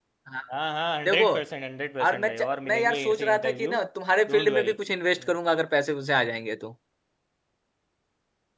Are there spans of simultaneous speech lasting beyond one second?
Yes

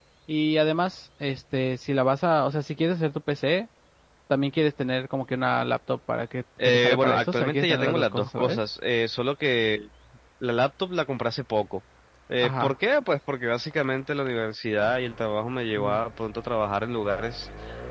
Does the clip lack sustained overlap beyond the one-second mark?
No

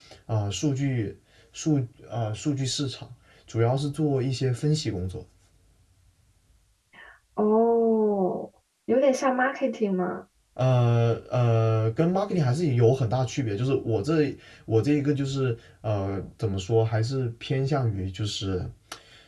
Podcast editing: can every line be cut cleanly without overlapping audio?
Yes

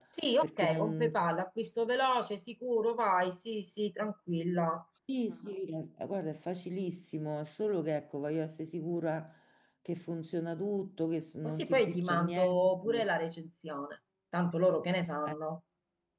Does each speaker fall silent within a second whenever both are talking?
No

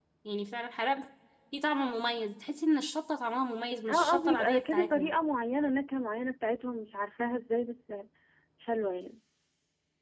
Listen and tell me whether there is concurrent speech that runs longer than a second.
Yes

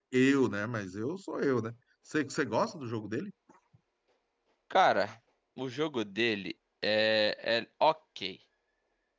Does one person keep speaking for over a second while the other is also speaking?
No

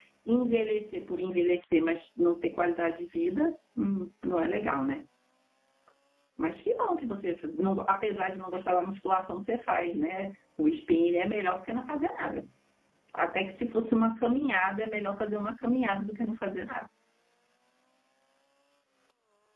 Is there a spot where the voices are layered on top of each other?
No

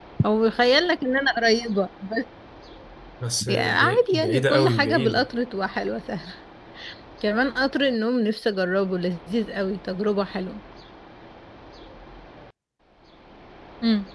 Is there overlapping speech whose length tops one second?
Yes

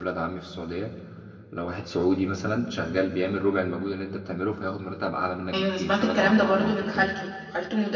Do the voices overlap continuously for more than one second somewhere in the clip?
Yes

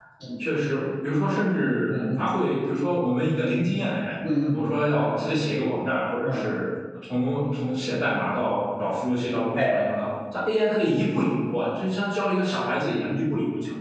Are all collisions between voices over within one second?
Yes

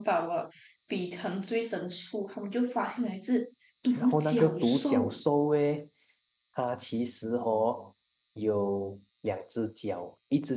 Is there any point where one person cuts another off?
Yes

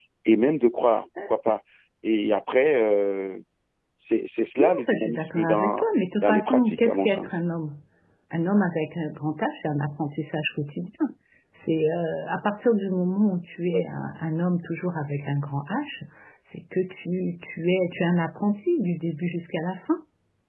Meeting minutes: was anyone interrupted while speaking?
Yes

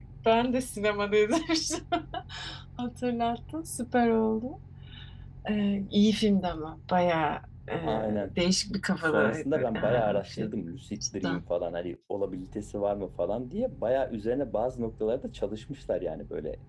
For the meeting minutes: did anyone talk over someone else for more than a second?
Yes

